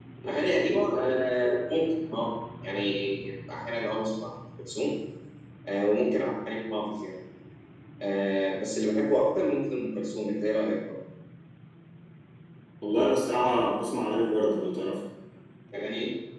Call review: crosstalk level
none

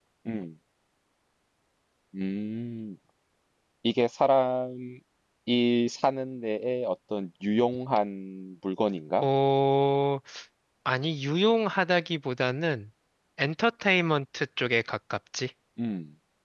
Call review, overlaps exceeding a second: none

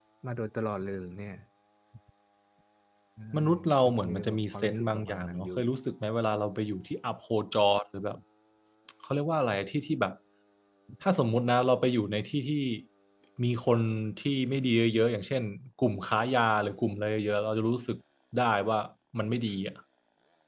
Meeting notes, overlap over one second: present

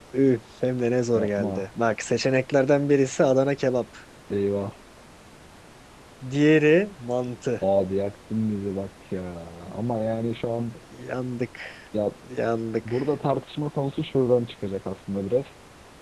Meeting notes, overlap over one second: none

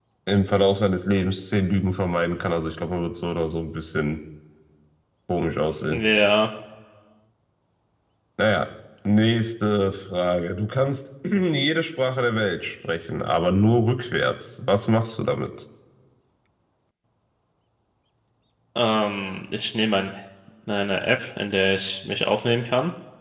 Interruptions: none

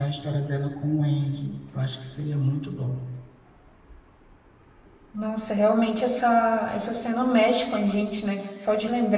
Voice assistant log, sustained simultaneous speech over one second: none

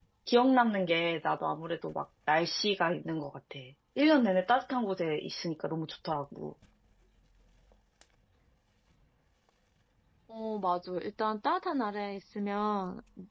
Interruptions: none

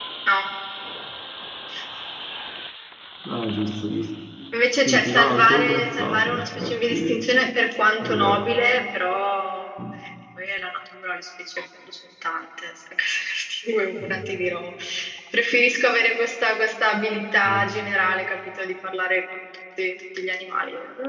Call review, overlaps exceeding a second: present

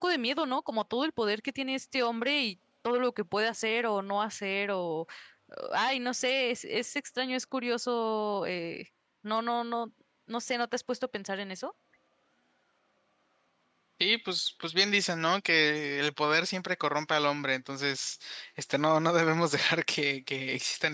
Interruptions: none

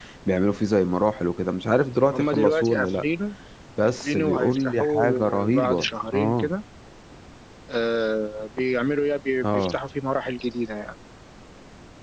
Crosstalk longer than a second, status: present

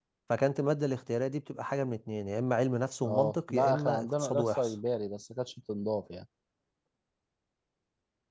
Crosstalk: present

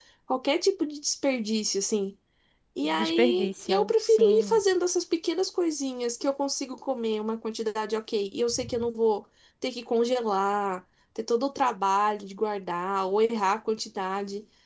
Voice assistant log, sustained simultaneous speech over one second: present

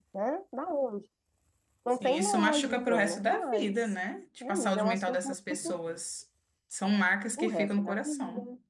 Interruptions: present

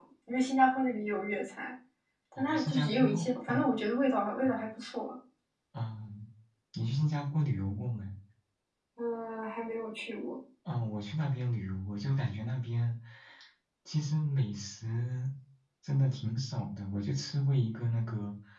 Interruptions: present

